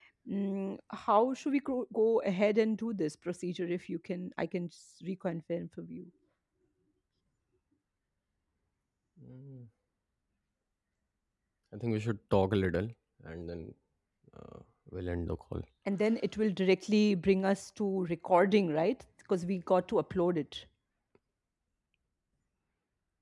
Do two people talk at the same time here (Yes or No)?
No